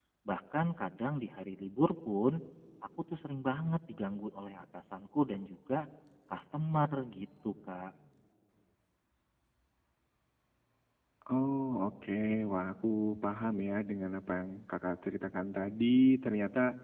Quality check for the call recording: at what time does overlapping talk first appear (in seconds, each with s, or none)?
none